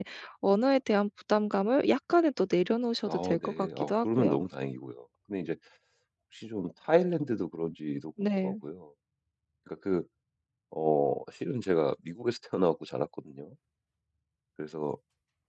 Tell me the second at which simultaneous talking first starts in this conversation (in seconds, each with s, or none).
3.1 s